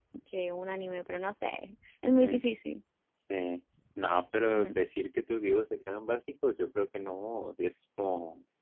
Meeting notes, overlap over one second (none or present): none